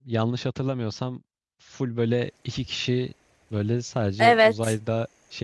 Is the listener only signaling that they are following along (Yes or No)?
Yes